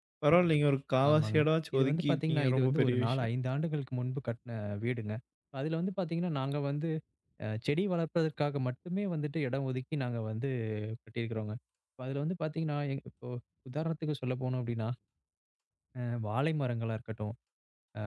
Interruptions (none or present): present